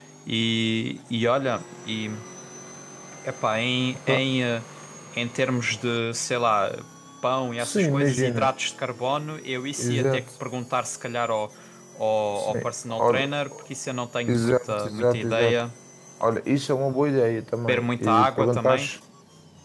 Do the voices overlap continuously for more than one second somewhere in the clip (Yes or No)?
Yes